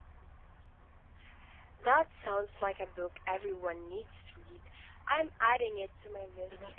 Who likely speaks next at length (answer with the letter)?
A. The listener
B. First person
A